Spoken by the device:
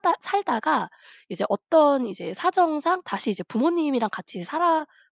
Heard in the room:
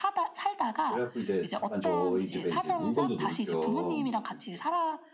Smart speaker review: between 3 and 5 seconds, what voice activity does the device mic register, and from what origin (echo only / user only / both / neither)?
both